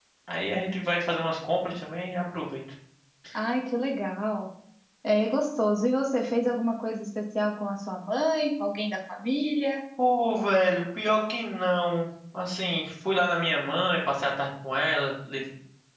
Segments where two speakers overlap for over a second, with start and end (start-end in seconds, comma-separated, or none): none